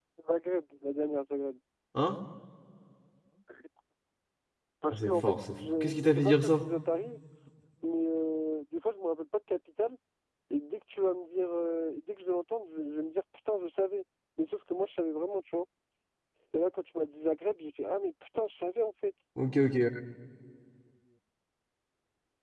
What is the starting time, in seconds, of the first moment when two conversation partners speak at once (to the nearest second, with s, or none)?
5 s